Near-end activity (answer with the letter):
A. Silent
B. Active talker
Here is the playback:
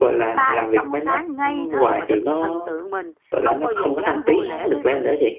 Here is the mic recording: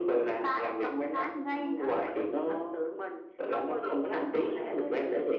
A